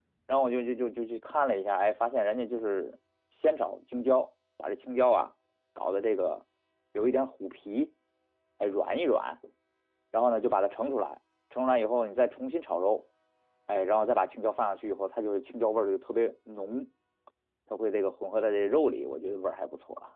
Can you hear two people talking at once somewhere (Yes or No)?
No